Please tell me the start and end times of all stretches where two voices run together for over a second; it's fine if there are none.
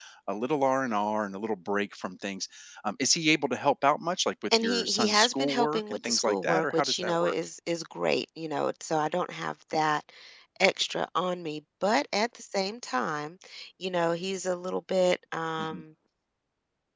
4.6-7.3

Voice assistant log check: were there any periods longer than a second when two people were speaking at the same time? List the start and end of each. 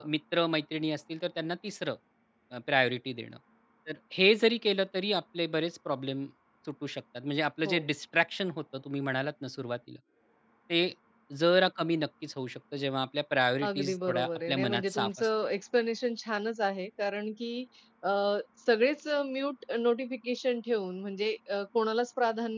13.7-15.3

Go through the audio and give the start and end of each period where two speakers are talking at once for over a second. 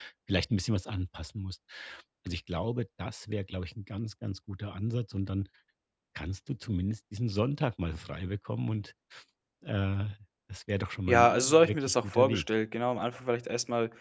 11.1-12.5

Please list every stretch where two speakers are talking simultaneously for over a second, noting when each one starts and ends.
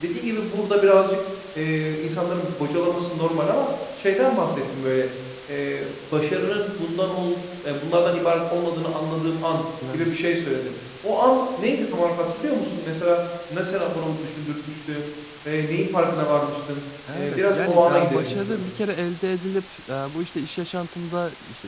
17.1-18.7

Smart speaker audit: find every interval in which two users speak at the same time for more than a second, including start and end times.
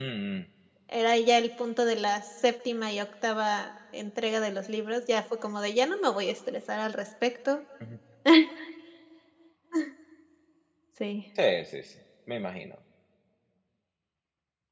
none

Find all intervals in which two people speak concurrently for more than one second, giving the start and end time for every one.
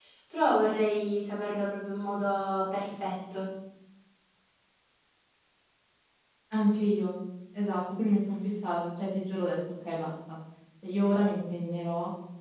none

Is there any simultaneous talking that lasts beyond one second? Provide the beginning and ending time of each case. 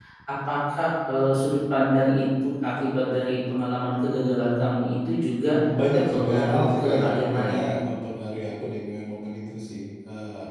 5.9-7.6

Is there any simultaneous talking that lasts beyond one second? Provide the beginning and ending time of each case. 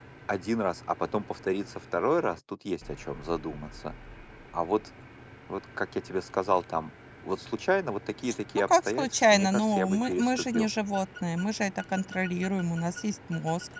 8.6-10.7

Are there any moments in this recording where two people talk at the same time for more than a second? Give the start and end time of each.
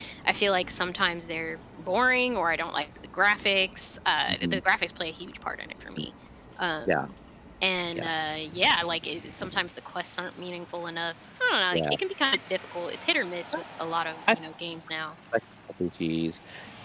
none

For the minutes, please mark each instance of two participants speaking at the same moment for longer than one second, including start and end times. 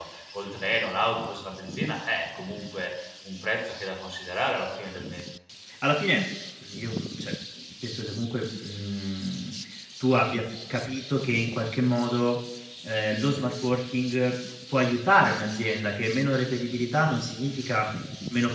none

